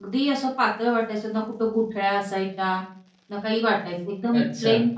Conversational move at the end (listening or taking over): listening